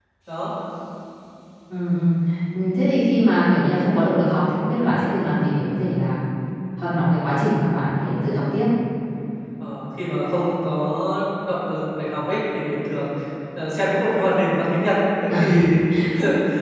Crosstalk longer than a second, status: none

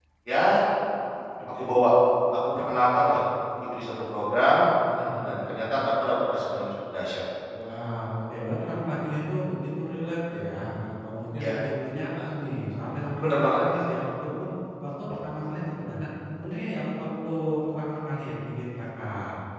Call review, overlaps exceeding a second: none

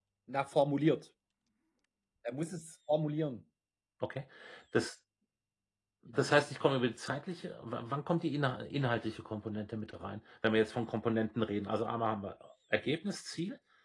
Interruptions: none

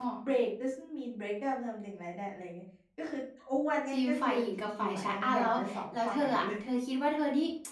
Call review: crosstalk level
present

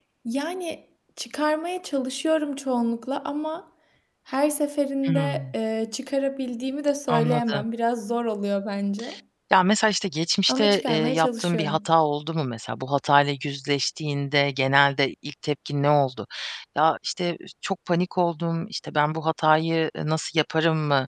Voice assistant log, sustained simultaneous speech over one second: present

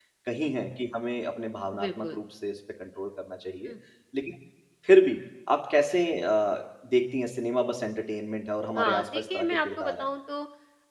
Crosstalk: present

